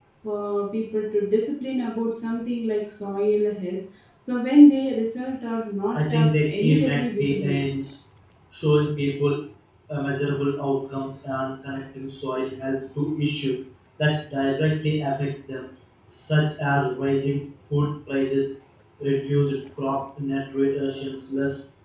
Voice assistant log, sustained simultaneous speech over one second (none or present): present